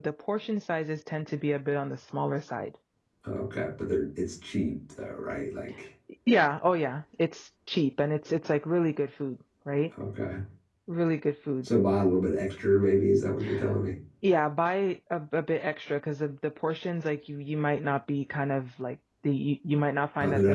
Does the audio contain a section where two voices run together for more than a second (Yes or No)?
No